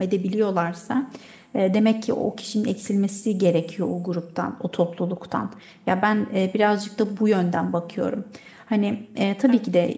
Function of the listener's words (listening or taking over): listening